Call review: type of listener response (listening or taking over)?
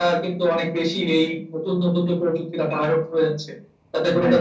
listening